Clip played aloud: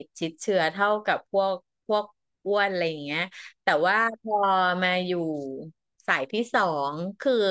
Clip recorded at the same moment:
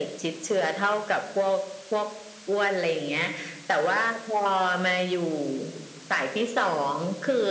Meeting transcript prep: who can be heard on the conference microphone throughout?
echo only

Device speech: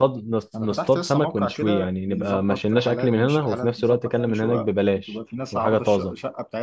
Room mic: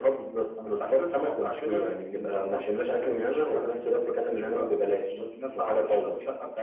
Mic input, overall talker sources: echo only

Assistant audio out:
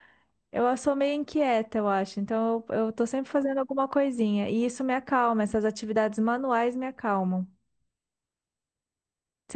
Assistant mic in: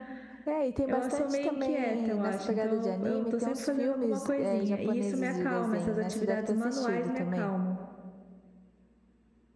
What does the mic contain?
both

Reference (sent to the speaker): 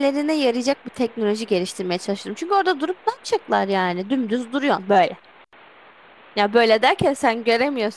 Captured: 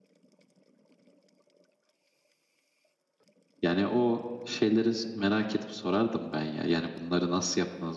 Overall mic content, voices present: user only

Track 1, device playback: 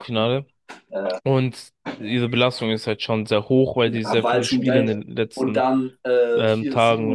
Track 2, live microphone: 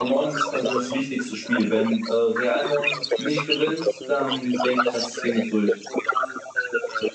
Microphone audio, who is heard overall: both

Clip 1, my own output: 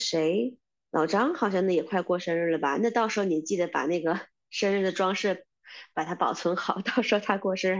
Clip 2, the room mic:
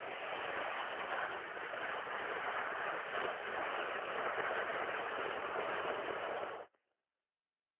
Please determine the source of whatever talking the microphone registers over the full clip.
neither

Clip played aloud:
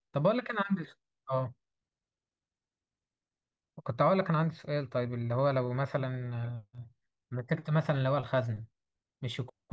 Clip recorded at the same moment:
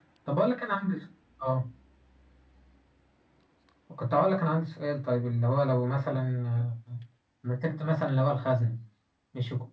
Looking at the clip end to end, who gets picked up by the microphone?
echo only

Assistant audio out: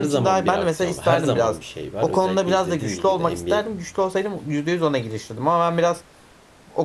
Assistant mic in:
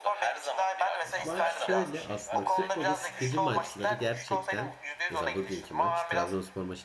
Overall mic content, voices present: both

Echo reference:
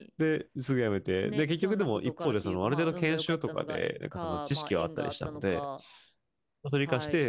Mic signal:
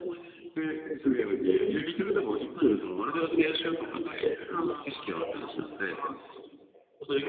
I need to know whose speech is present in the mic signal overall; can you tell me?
echo only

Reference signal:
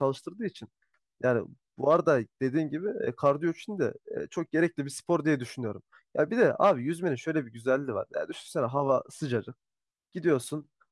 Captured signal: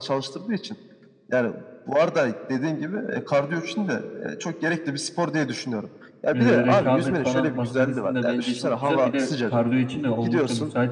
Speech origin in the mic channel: both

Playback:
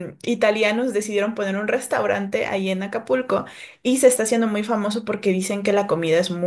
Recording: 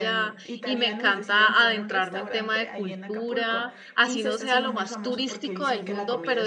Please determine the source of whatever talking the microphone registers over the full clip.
both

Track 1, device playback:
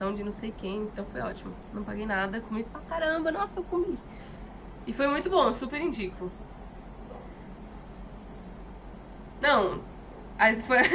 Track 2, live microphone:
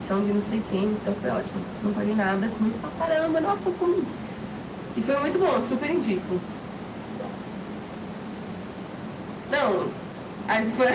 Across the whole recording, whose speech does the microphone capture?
echo only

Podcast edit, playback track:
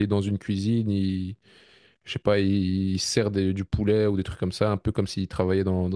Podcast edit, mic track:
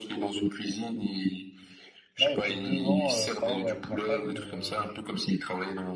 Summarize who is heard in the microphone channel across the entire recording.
both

